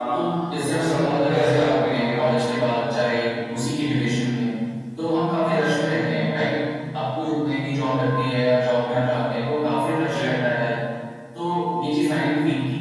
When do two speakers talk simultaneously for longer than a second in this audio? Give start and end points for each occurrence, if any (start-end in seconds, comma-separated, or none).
0.7-2.2